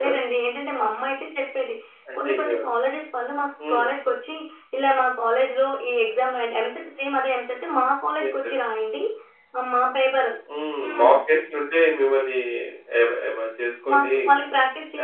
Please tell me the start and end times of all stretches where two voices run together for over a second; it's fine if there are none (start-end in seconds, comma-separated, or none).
none